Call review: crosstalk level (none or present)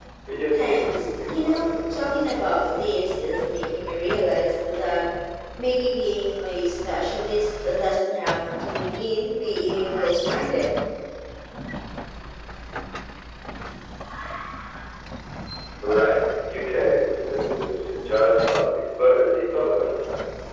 present